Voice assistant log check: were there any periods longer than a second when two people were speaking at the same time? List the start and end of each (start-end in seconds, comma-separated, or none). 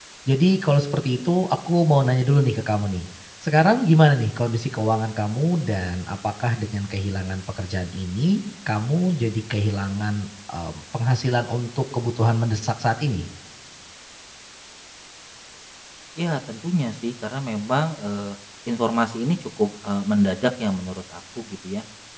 none